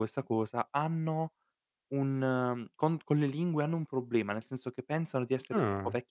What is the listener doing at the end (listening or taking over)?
listening